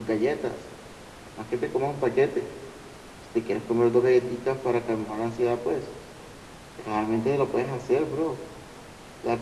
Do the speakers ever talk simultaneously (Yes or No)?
No